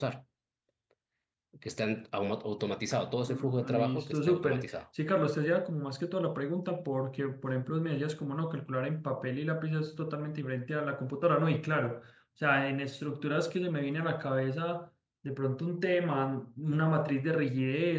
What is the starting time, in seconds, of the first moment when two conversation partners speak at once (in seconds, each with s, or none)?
3.3 s